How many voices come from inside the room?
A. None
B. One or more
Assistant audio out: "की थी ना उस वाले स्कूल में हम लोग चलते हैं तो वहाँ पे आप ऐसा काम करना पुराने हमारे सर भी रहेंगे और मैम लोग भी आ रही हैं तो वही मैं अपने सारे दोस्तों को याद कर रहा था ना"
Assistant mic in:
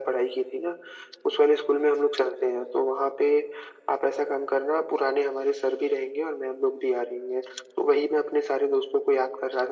A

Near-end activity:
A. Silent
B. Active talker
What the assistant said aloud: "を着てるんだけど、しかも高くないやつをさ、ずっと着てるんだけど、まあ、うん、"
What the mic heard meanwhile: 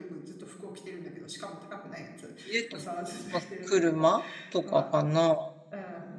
B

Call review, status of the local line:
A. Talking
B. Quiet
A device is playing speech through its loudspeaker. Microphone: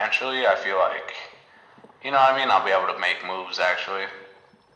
B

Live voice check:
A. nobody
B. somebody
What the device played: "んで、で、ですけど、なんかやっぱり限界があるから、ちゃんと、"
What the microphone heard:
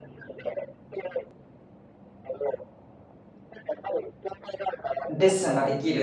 B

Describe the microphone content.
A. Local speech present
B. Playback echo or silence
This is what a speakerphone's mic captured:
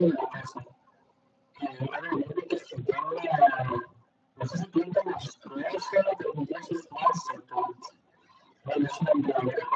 B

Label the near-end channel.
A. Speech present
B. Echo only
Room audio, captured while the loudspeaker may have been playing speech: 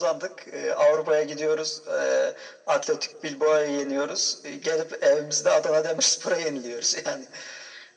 B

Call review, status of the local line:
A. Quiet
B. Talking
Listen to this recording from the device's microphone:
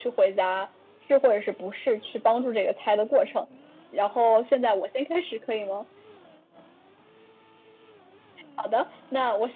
A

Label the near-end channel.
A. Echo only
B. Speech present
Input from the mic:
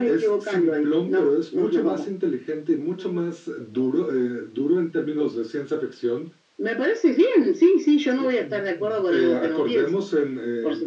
A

